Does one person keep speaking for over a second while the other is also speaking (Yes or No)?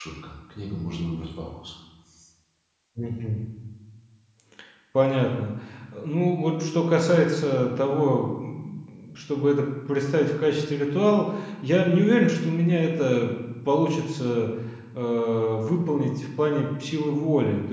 No